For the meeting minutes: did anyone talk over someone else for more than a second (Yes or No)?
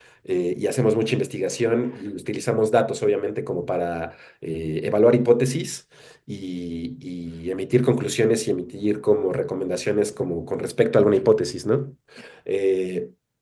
No